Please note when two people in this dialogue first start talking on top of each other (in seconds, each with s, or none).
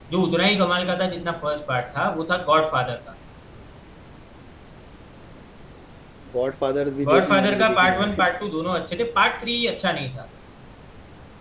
7.0 s